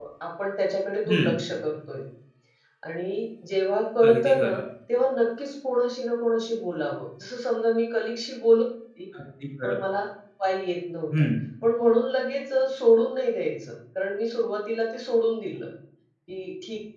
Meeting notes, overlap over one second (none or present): none